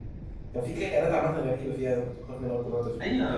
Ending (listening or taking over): taking over